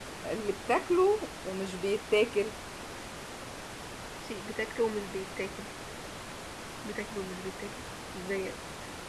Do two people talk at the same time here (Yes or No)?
No